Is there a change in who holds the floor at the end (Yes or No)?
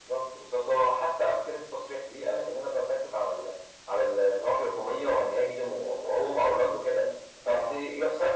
No